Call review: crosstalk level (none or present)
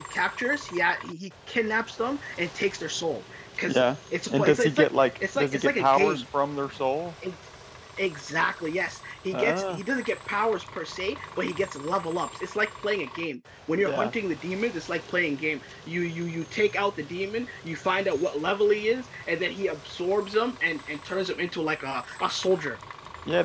present